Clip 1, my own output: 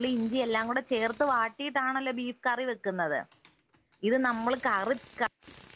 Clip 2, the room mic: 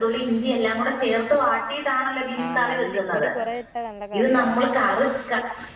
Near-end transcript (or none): ആഹ് മല്ലിപ്പൊടി കുറെ ഇട്ടാ നല്ല കറിയാവും